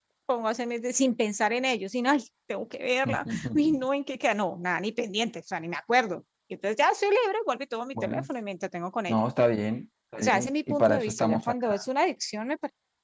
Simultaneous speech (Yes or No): Yes